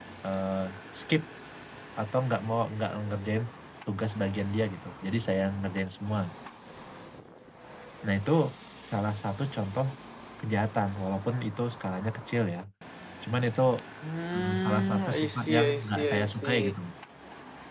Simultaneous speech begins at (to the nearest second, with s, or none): 14 s